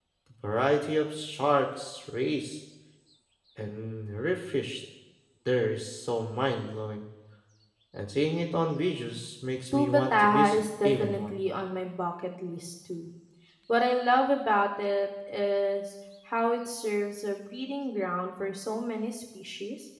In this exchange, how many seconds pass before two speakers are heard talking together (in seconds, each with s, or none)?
9.7 s